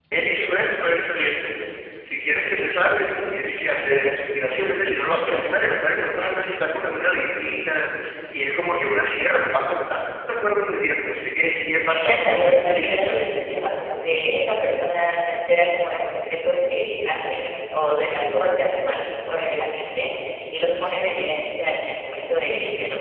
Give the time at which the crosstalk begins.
11.8 s

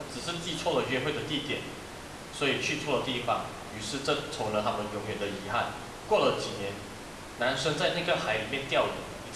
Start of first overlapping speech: none

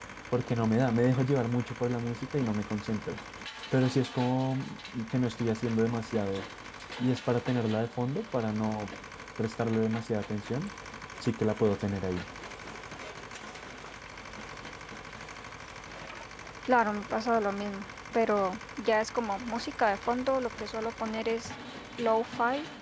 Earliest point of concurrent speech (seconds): none

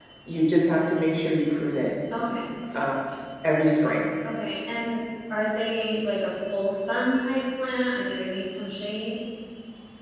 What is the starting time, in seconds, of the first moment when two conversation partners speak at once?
none

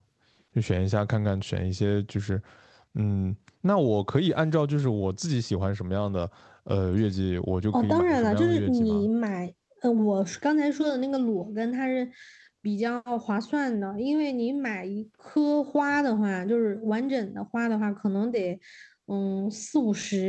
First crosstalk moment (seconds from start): 7.7 s

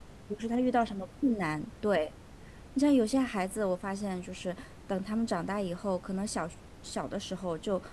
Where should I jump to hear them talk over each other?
none

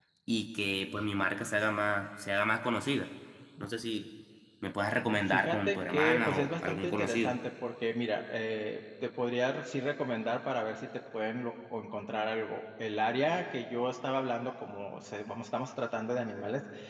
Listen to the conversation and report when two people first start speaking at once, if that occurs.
5.2 s

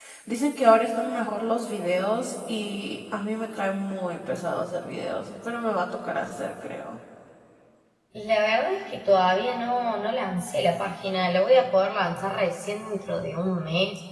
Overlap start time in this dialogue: none

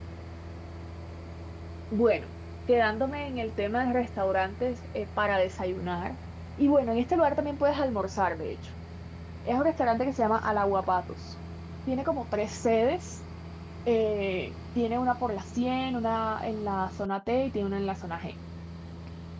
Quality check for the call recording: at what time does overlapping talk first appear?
none

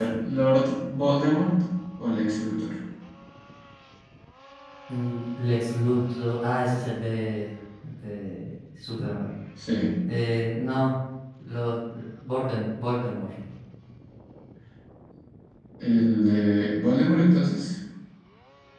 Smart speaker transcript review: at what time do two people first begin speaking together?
none

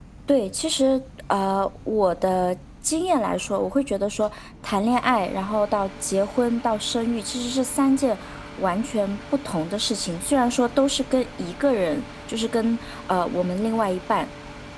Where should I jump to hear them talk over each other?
none

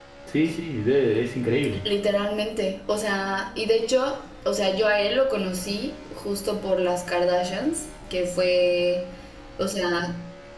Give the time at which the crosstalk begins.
none

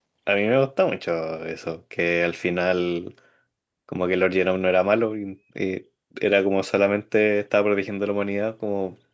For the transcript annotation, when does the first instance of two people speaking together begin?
none

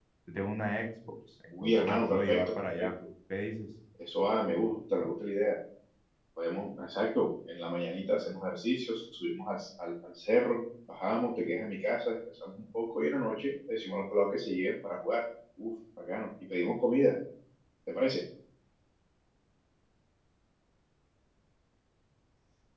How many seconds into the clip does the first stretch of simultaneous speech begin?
1.5 s

